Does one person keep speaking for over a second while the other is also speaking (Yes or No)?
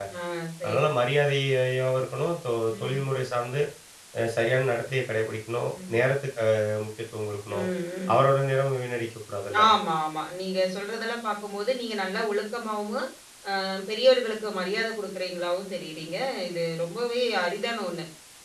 No